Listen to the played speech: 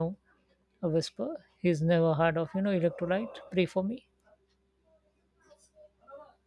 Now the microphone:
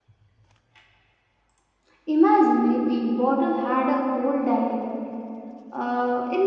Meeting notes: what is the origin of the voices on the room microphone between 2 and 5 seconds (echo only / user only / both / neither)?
user only